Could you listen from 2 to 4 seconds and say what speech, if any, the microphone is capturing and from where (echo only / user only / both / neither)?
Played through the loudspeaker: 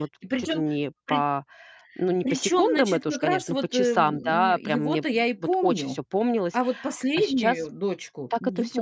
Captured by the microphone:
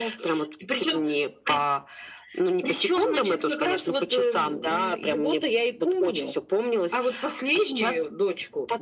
echo only